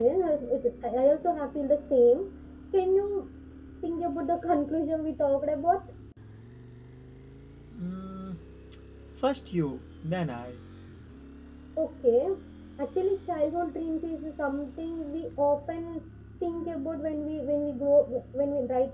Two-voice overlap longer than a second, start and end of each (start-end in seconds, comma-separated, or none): none